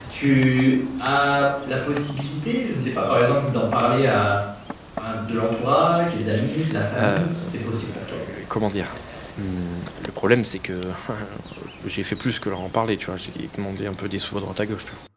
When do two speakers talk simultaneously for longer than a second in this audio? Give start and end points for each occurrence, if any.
6.9-8.2

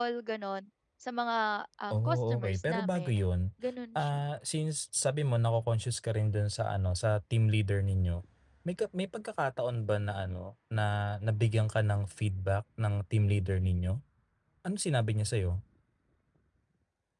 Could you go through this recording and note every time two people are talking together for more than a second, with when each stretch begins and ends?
1.9-3.2

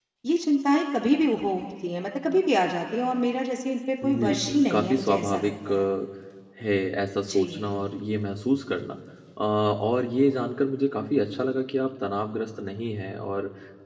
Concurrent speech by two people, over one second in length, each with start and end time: 4.0-5.7

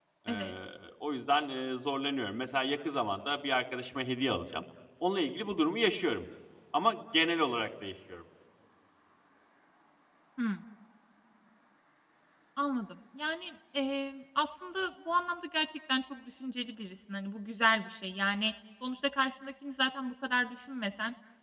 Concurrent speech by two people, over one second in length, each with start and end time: none

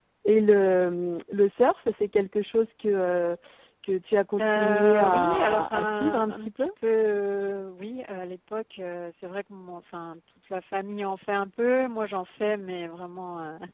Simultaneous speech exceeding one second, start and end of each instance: 4.4-6.7

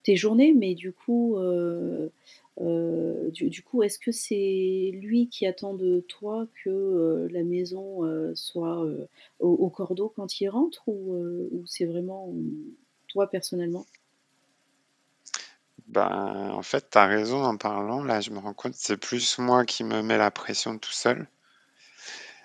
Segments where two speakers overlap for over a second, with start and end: none

